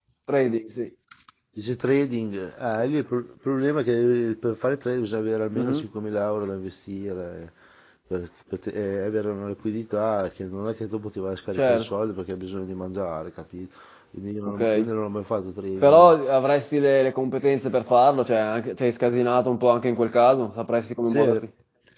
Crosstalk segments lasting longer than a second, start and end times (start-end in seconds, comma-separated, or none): none